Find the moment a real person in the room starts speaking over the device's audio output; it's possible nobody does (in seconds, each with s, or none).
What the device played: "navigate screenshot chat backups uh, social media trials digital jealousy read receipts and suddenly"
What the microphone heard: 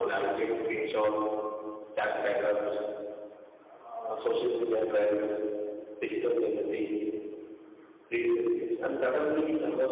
none